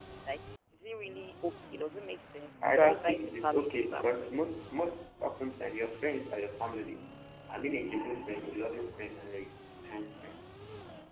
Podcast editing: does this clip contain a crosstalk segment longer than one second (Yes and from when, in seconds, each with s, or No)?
Yes, from 2.6 s